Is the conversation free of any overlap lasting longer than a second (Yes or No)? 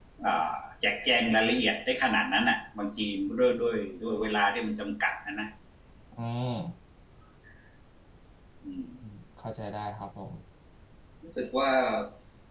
Yes